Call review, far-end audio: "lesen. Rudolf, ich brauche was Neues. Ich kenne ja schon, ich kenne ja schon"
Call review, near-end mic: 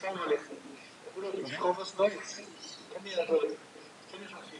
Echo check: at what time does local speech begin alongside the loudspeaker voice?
1.4 s

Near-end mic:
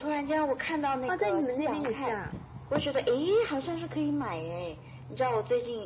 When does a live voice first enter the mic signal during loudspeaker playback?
1.0 s

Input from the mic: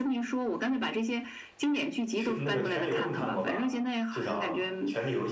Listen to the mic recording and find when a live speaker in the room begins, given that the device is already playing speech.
2.1 s

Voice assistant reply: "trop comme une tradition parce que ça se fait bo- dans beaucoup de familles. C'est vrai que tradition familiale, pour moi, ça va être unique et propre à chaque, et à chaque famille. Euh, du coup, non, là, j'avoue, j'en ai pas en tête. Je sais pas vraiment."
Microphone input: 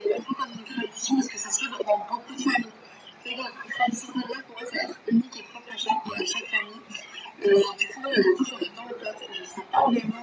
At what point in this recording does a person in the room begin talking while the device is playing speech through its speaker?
none

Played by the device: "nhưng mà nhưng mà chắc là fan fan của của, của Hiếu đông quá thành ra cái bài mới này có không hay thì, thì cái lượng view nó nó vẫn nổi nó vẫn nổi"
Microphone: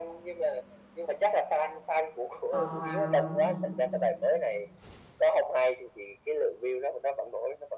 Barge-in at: 2.5 s

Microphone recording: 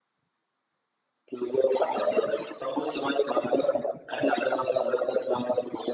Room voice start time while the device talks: none

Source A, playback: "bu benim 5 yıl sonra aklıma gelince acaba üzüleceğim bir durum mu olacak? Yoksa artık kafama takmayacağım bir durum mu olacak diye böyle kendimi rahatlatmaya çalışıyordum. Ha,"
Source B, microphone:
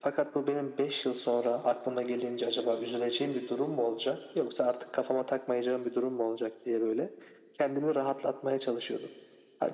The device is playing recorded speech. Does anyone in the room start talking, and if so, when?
none

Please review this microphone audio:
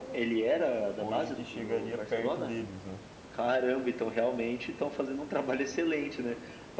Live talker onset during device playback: 1.0 s

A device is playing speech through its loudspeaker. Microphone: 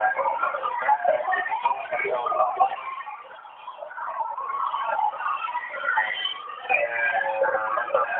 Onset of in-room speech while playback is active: none

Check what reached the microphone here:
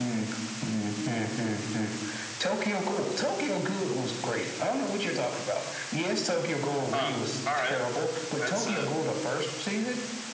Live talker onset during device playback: 6.9 s

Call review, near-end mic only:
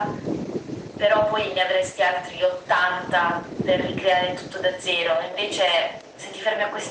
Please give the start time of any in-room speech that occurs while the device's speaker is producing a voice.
none

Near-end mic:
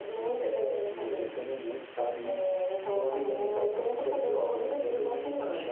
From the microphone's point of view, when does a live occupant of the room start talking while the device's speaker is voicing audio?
3.2 s

